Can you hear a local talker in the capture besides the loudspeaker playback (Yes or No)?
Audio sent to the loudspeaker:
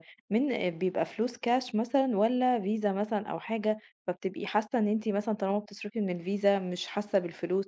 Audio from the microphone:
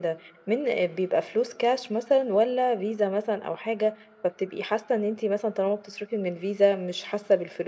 No